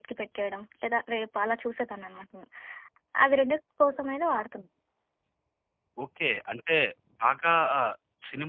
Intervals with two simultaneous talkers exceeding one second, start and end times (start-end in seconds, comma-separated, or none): none